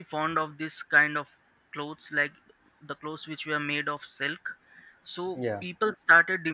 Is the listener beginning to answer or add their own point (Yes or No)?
No